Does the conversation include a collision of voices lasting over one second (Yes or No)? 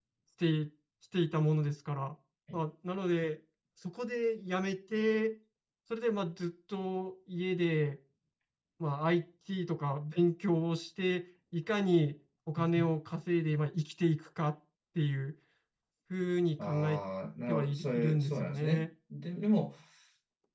Yes